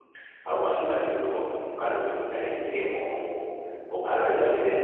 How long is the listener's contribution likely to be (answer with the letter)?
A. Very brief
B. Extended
A